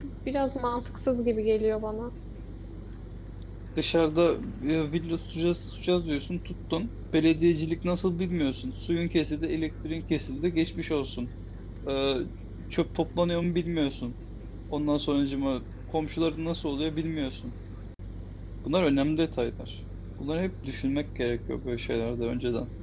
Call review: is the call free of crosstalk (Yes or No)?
Yes